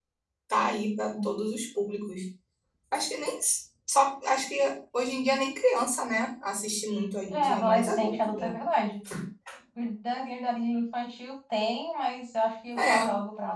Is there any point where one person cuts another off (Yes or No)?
Yes